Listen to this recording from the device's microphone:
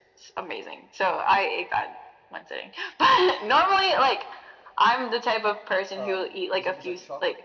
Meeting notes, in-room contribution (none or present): present